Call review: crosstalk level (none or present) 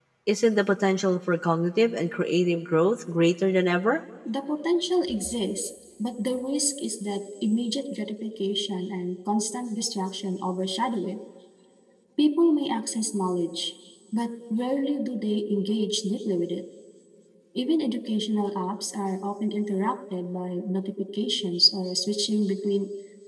none